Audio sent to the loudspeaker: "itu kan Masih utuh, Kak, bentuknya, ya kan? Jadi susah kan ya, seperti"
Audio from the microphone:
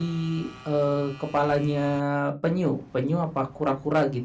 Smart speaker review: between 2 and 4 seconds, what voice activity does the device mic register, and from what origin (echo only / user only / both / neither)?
user only